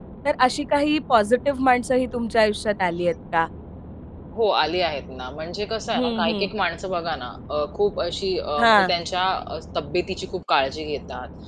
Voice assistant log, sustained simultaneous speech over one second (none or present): none